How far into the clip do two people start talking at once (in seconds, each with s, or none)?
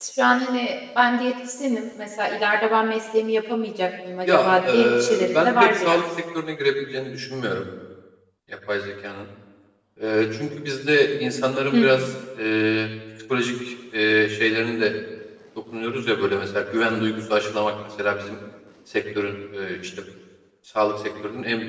4.2 s